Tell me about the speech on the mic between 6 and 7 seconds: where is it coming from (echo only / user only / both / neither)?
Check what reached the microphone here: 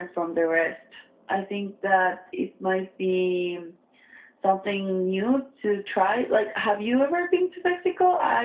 echo only